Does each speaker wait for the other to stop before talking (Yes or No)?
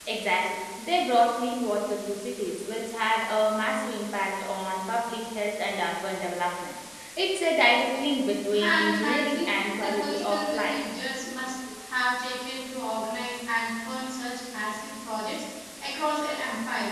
No